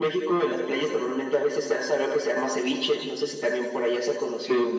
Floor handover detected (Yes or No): Yes